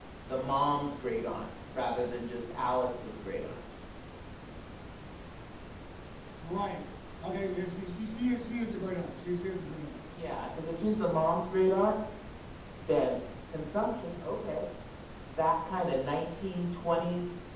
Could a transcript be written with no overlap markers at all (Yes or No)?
Yes